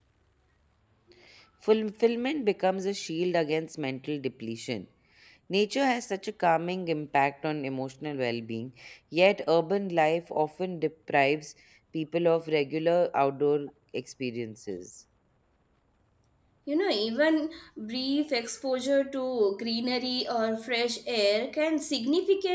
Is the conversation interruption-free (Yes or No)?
Yes